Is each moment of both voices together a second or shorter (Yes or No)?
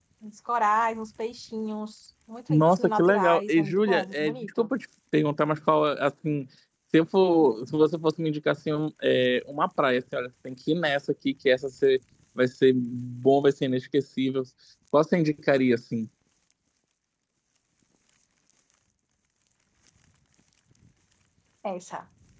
No